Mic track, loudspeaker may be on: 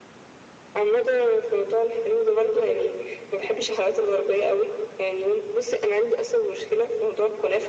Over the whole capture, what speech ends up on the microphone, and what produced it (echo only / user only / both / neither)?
echo only